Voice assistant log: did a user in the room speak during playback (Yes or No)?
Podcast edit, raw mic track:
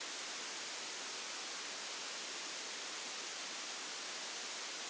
No